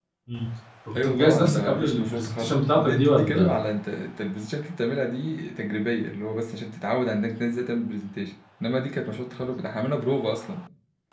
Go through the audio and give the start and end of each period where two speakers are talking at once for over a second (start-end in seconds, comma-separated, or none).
0.9-3.5